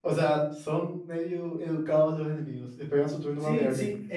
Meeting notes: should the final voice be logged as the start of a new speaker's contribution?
Yes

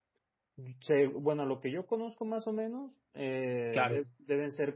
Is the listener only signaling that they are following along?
Yes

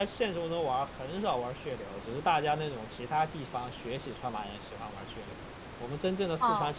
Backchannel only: Yes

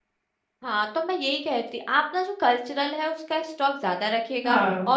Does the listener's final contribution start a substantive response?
No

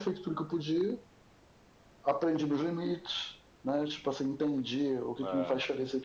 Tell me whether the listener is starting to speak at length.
No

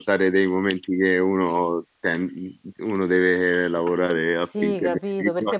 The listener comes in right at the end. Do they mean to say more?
Yes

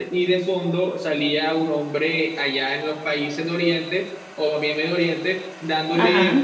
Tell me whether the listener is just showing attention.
Yes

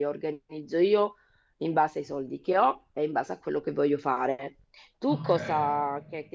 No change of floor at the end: Yes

